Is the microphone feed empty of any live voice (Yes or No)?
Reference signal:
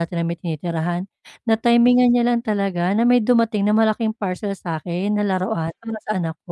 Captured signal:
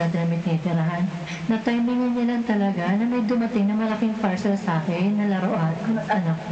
Yes